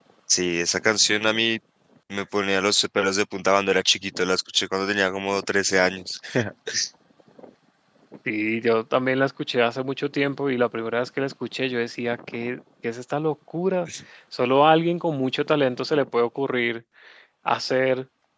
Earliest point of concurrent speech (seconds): none

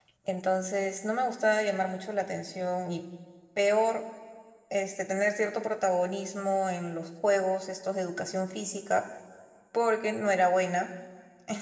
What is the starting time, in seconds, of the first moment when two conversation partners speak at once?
none

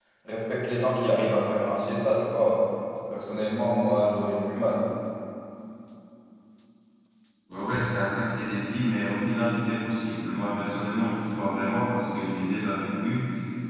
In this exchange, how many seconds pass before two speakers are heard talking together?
none

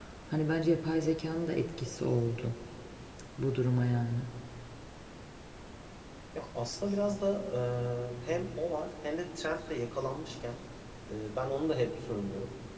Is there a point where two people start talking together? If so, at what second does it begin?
none

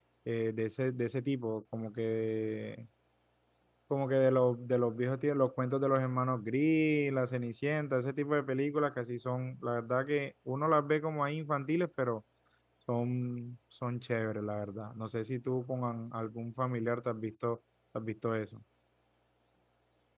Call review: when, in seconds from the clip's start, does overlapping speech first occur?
none

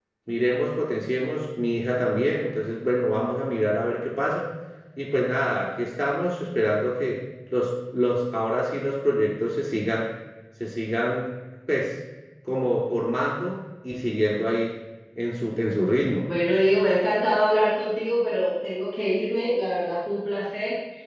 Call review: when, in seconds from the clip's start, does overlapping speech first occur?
none

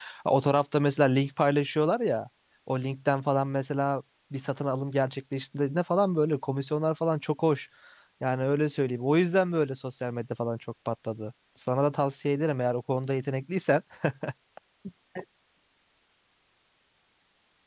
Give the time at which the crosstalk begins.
none

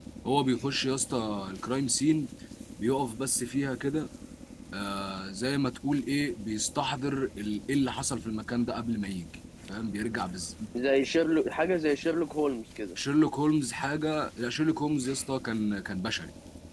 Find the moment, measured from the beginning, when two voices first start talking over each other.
none

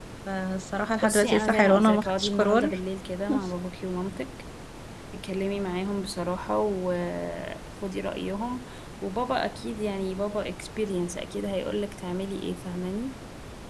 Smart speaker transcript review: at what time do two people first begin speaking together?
1.0 s

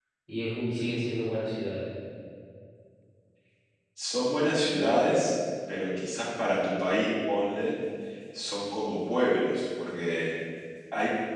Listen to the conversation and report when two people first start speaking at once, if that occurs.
none

